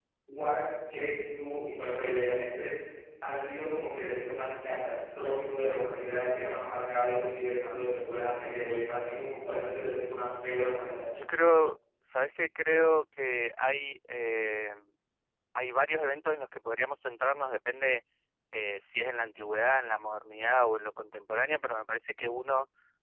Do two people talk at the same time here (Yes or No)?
No